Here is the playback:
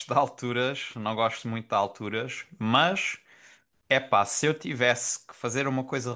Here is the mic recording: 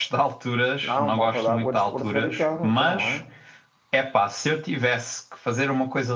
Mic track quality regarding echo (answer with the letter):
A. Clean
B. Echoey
B